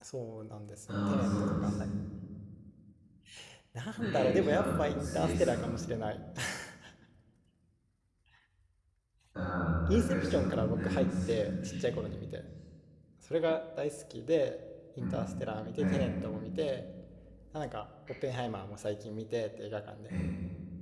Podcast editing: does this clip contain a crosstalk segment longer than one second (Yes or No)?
Yes